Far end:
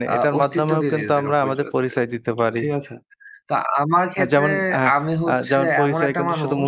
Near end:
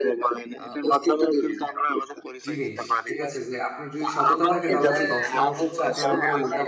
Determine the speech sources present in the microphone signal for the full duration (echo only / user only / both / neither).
both